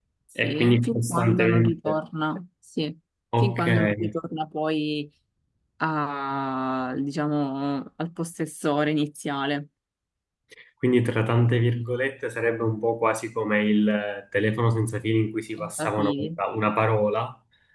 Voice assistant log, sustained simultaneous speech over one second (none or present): present